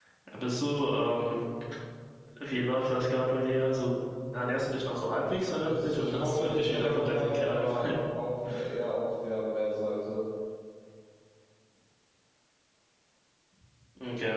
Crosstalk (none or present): present